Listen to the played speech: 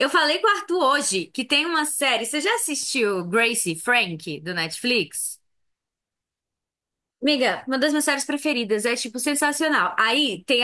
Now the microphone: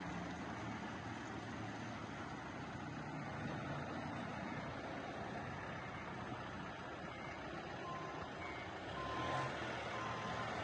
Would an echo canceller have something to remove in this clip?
No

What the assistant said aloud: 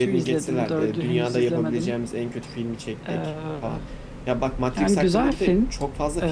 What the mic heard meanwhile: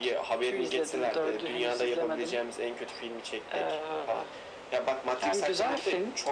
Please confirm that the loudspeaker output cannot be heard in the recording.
No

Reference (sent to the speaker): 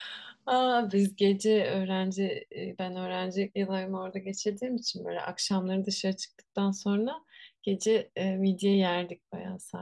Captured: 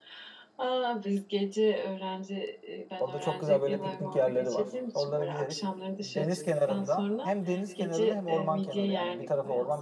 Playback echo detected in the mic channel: Yes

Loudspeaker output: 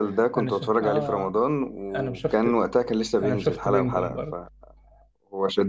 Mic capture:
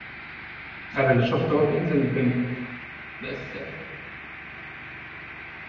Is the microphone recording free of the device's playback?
Yes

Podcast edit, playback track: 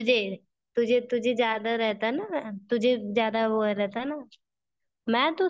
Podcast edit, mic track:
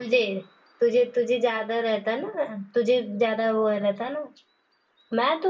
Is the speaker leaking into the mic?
Yes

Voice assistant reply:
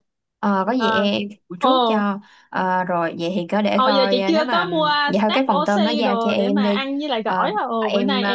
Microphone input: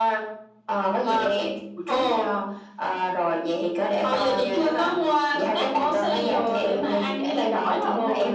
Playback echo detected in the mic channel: Yes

